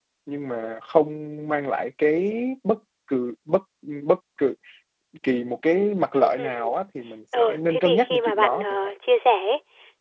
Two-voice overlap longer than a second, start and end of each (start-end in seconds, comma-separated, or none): 7.4-8.8